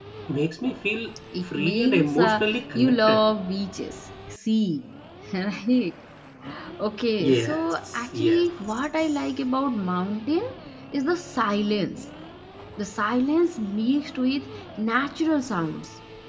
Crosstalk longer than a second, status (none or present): present